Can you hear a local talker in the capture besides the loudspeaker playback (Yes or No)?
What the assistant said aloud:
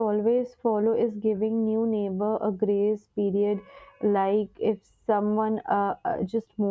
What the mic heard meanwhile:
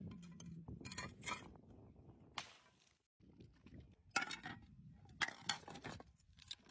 No